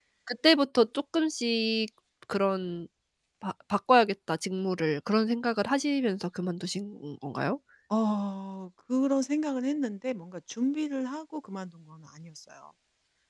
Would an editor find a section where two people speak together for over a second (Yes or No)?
No